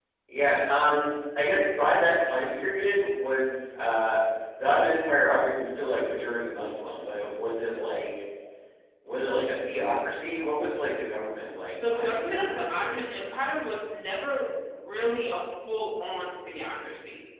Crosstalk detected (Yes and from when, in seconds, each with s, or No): Yes, from 11.6 s